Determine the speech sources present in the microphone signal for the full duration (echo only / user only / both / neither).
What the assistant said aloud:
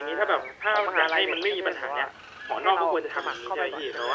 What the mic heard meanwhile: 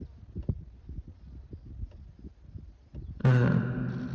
user only